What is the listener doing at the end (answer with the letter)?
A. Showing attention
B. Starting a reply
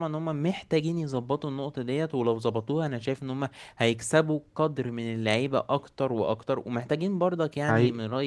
A